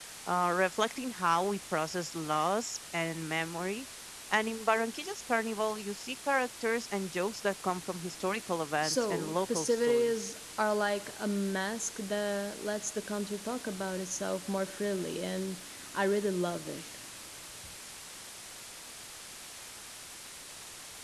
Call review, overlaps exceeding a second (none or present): present